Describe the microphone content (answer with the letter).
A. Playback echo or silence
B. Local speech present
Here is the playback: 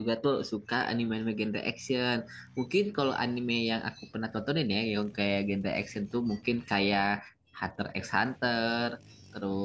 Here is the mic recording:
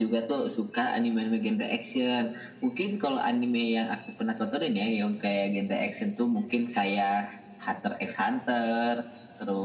A